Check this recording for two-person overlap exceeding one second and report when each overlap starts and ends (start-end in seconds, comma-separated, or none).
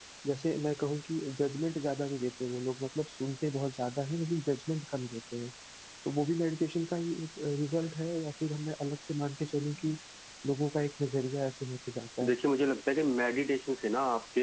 none